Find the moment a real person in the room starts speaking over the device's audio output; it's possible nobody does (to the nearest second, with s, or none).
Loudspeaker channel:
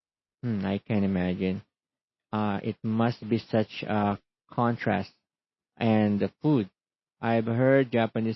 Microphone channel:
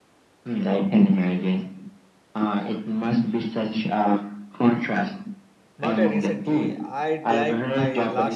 6 s